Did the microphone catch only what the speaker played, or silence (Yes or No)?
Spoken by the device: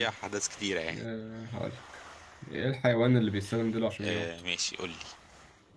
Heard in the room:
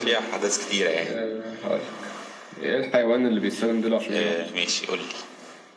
Yes